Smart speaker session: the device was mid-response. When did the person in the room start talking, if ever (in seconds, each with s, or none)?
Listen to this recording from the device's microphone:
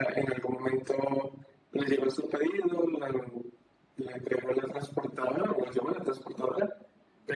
none